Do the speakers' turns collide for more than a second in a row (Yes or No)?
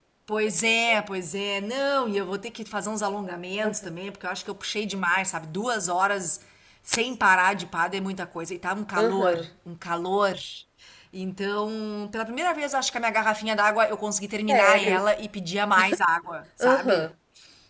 No